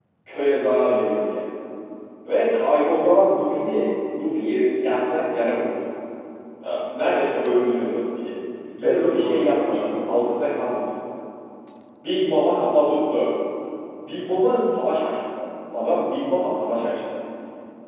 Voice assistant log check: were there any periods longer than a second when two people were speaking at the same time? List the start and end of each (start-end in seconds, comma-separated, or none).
8.8-10.6